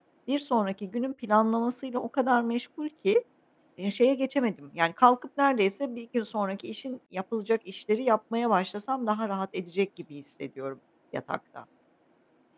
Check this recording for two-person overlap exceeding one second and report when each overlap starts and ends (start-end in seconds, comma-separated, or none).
none